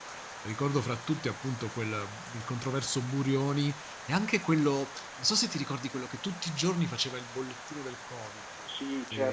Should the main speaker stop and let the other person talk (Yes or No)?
Yes